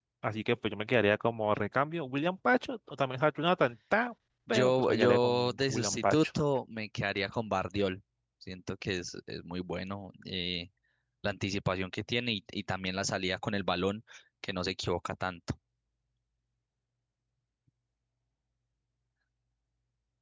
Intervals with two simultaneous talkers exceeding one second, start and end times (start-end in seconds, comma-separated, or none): 4.5-6.2